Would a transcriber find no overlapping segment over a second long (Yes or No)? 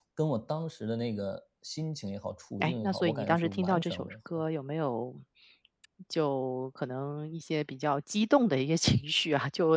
No